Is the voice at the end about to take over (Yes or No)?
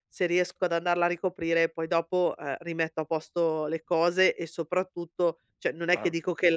No